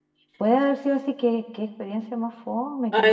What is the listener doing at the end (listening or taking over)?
taking over